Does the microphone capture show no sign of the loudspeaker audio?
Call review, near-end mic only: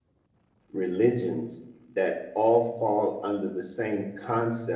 Yes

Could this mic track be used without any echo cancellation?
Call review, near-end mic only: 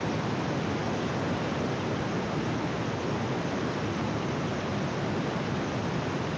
Yes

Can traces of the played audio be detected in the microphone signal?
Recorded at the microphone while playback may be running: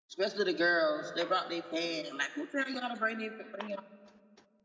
No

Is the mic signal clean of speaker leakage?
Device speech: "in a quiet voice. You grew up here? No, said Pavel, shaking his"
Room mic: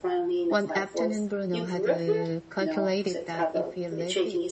No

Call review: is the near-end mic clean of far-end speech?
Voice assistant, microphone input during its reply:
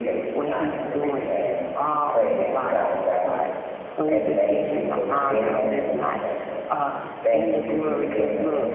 No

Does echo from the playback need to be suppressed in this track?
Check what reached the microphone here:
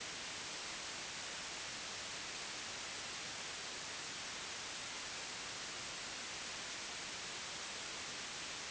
No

